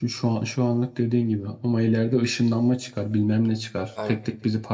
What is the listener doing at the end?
listening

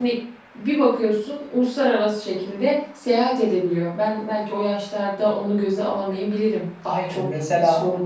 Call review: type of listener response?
listening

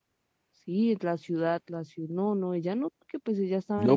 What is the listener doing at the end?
taking over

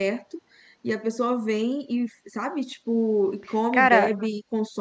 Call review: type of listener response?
listening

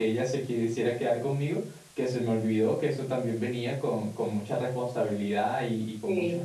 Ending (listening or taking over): listening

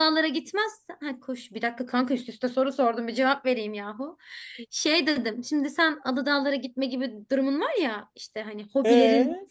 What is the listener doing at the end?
listening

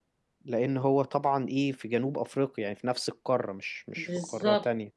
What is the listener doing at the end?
taking over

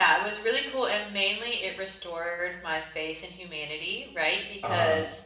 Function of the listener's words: listening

